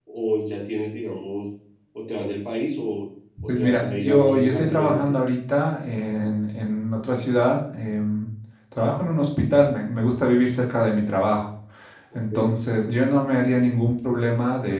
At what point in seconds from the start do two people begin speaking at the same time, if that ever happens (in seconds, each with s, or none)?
3.5 s